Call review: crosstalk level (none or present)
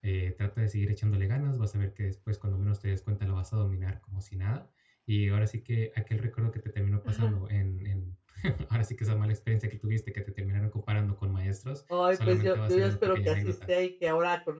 present